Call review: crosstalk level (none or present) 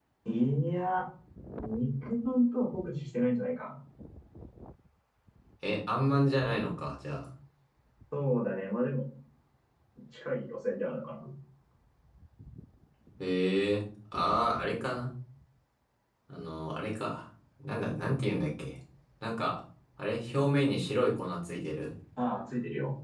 none